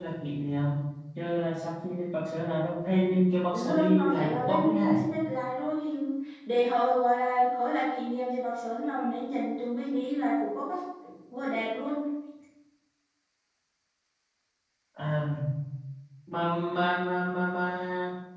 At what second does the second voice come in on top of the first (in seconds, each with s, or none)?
3.5 s